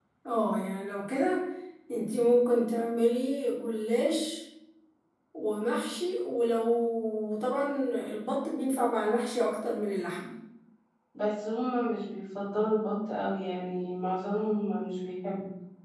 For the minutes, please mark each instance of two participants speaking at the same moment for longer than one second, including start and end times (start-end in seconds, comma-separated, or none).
none